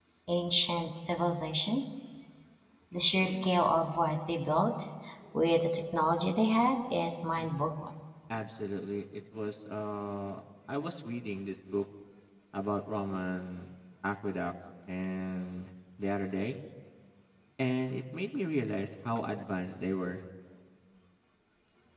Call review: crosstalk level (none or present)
none